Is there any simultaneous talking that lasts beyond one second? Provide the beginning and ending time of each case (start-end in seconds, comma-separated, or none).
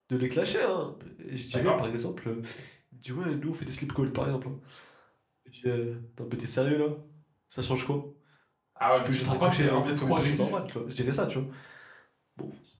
9.0-10.5